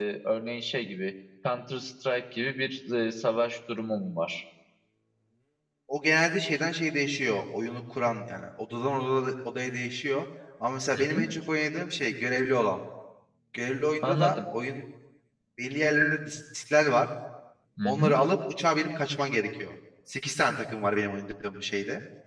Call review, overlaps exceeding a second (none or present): none